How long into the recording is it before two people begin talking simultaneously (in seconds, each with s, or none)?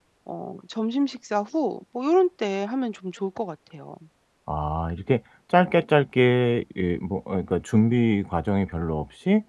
none